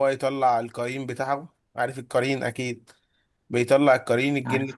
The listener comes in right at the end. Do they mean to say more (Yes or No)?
No